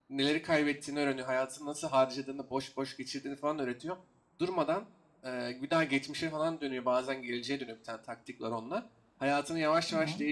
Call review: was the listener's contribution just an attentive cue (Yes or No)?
Yes